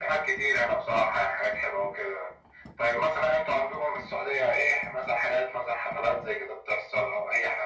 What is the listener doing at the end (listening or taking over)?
taking over